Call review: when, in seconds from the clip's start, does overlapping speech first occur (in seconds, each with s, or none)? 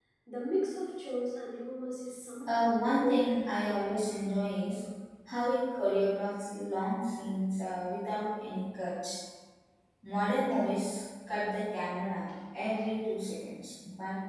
2.4 s